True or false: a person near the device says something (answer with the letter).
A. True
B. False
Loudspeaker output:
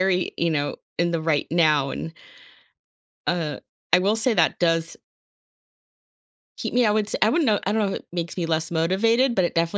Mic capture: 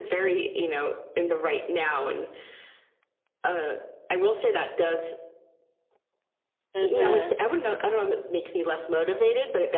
A